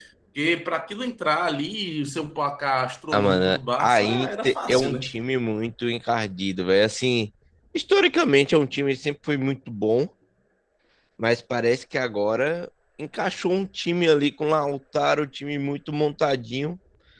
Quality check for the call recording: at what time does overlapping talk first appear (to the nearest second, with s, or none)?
3 s